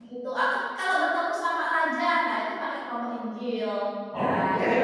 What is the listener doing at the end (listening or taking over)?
taking over